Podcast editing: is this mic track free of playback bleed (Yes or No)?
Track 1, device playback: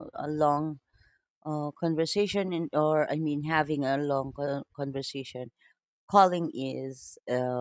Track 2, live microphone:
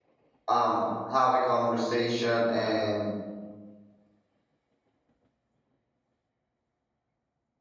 Yes